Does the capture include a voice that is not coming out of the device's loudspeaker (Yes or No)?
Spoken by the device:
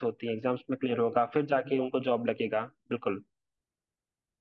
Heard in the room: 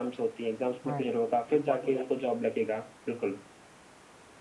Yes